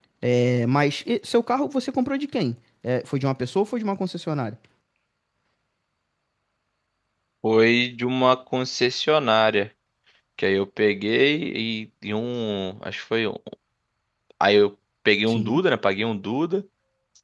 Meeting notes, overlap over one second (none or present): none